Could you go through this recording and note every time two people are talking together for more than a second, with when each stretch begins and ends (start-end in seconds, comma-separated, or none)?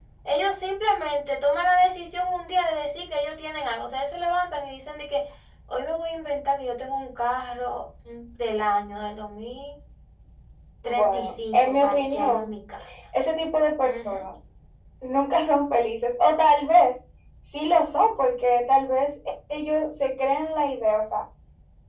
10.8-12.5